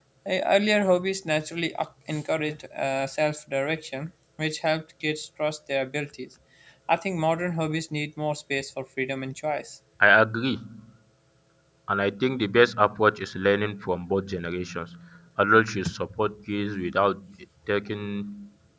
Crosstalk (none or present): none